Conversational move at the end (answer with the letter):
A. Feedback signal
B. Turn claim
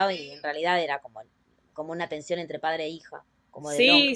B